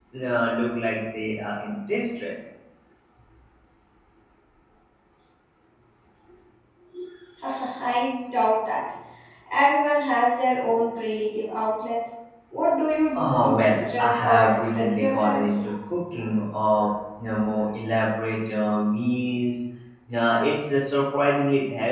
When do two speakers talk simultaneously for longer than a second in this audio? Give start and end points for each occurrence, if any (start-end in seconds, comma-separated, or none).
13.2-15.5